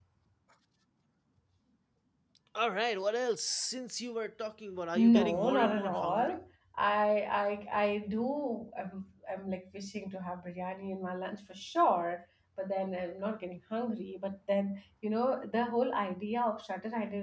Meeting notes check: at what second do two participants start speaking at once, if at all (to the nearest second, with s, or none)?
5 s